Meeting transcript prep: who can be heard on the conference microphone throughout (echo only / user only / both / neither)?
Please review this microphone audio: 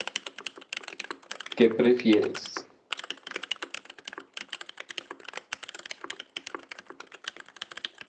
user only